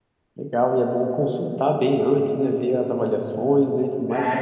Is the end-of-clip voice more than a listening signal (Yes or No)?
Yes